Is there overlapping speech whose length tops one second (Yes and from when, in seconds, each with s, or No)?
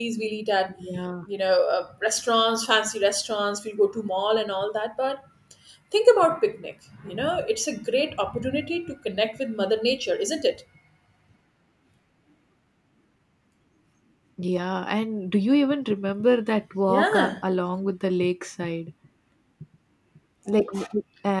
No